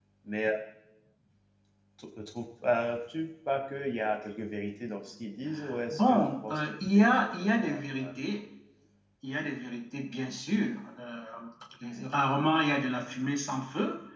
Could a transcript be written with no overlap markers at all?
No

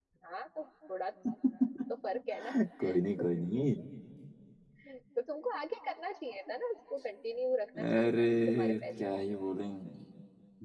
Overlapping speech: Yes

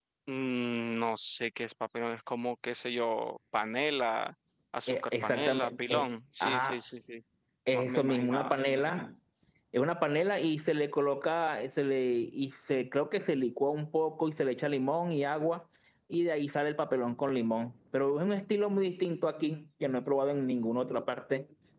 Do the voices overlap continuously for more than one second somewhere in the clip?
Yes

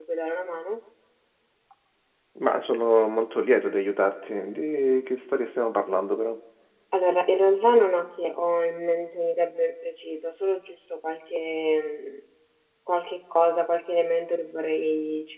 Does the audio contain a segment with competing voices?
No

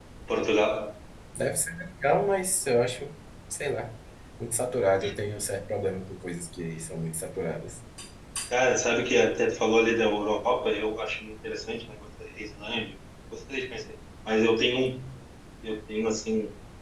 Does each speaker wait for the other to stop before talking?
Yes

